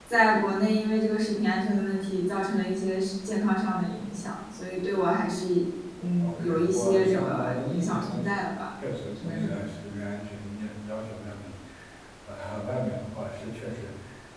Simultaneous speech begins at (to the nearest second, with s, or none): 6 s